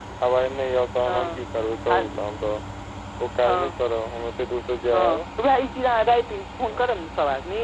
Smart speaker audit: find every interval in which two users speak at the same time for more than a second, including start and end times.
none

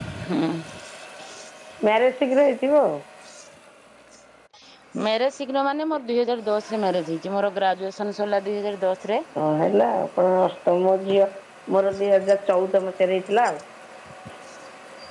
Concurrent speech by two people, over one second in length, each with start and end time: none

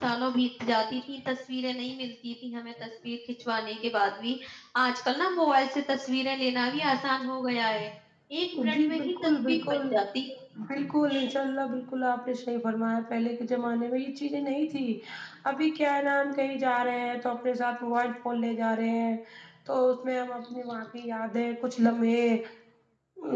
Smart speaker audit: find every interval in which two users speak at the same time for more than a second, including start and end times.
8.6-9.9

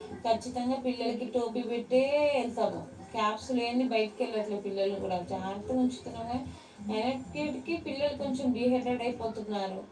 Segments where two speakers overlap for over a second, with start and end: none

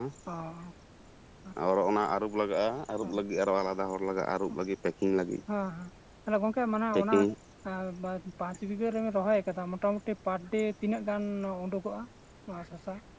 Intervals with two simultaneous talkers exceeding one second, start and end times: none

